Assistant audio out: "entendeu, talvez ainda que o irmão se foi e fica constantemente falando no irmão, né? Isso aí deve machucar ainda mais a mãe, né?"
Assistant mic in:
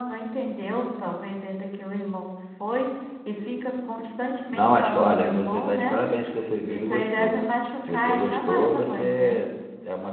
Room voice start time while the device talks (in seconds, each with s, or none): 4.5 s